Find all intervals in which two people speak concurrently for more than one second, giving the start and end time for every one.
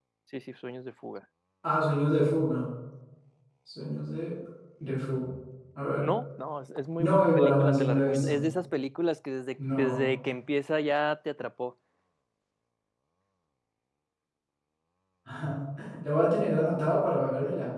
7.0-8.4

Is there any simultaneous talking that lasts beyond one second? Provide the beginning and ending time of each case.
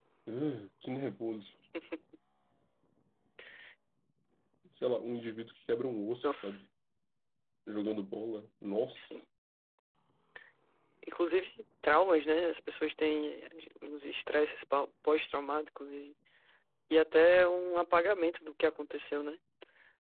none

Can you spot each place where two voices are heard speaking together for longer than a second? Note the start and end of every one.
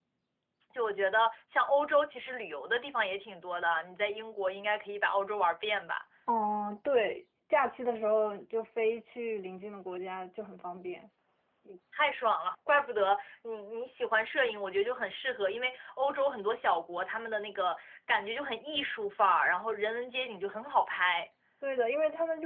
none

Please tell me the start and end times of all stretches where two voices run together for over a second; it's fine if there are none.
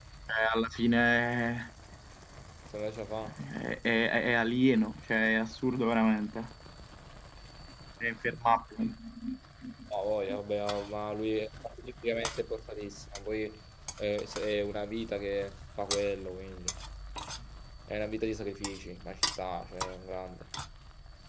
none

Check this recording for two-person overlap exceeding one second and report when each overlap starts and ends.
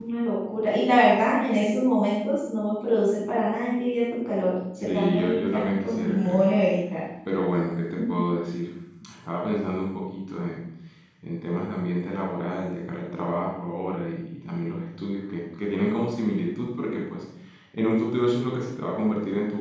4.9-6.5

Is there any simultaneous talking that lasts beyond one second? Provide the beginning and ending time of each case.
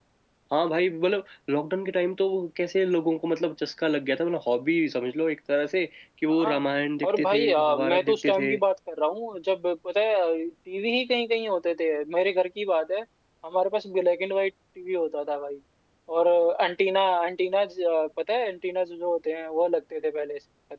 7.1-8.5

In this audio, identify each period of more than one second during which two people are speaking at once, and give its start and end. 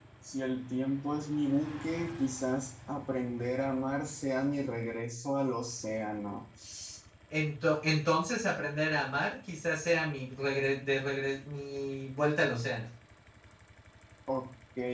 none

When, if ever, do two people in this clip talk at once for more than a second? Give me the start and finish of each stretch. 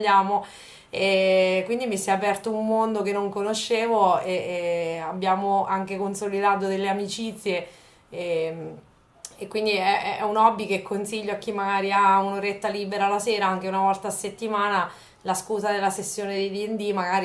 none

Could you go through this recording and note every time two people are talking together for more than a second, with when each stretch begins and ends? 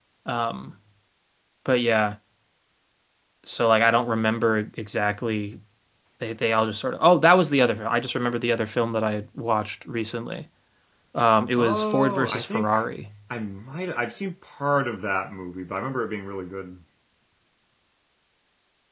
11.6-12.8

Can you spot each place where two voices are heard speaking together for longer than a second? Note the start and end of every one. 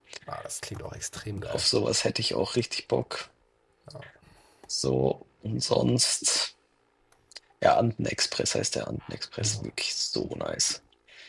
none

